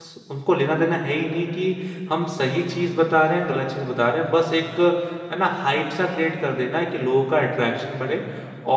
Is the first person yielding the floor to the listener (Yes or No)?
No